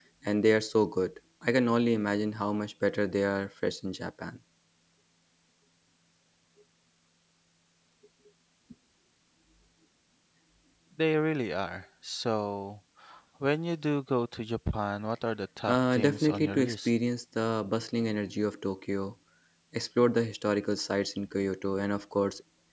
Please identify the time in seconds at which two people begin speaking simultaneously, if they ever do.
15.7 s

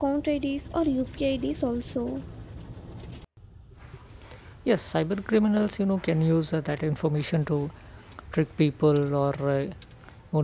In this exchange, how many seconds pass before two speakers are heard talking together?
none

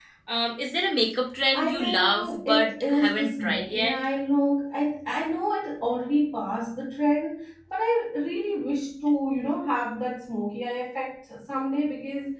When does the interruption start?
1.5 s

